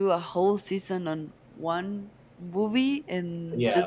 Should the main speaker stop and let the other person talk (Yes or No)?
No